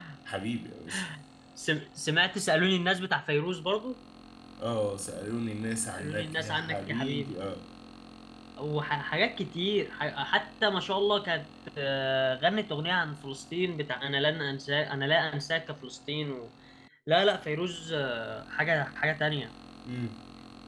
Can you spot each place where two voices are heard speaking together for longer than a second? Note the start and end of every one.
5.9-7.3

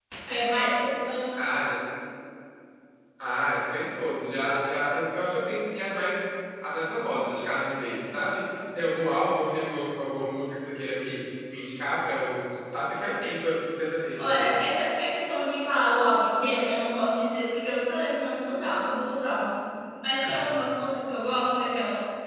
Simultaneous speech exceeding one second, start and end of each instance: none

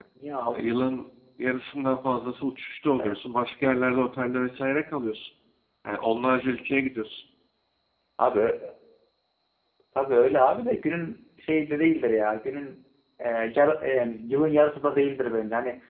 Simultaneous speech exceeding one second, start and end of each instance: none

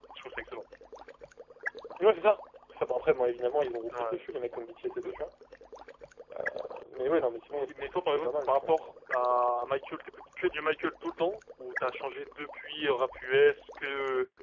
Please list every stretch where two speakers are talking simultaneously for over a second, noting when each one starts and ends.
7.5-8.9

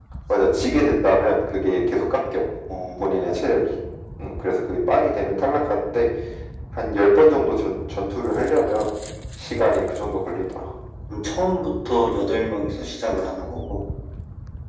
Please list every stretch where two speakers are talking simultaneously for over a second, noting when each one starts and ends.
none

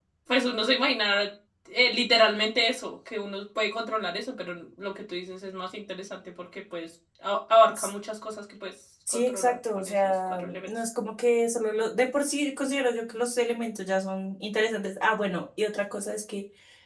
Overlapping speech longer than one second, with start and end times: 9.1-10.7

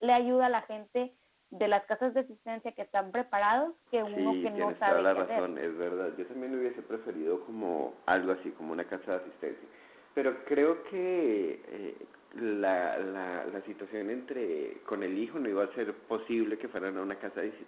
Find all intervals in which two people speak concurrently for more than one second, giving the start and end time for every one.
4.0-5.5

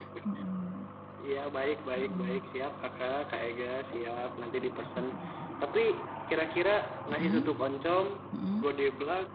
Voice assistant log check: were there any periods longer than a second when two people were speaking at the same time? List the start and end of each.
none

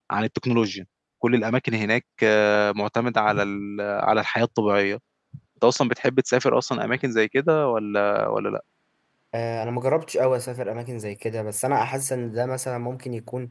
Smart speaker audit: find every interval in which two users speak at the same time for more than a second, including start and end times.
none

